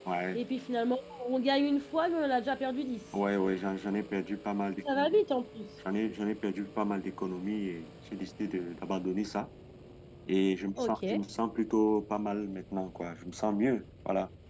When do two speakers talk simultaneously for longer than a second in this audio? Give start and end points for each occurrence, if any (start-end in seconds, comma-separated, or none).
none